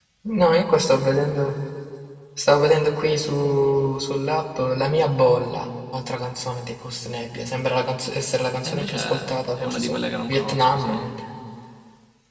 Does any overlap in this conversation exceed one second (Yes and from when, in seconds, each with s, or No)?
Yes, from 8.7 s